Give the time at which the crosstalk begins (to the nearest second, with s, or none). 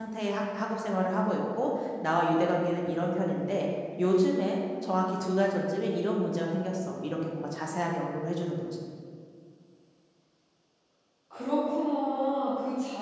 none